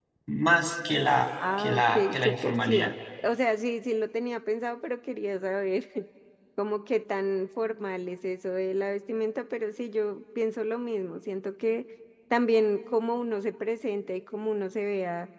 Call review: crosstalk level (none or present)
present